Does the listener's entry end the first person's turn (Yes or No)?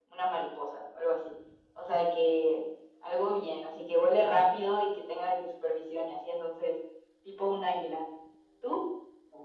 Yes